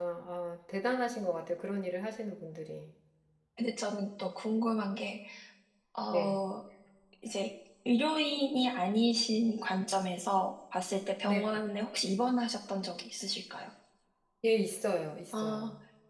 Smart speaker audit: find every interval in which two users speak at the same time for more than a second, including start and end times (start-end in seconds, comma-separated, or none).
none